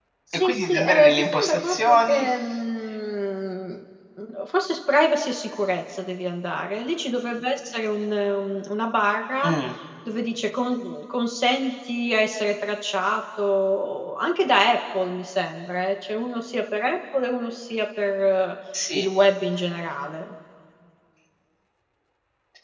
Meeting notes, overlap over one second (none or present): present